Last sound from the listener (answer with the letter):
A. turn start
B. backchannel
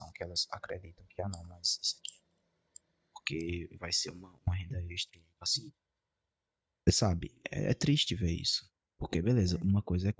B